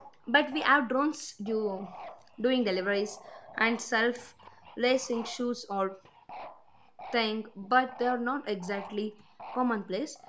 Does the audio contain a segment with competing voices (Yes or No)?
No